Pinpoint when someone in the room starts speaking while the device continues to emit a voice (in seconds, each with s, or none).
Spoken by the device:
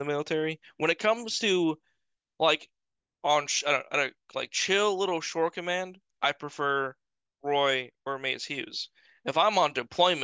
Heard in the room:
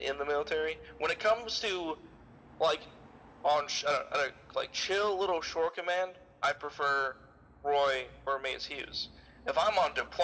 none